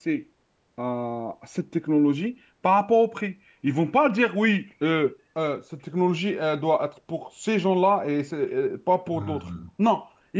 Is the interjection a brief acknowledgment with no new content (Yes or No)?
Yes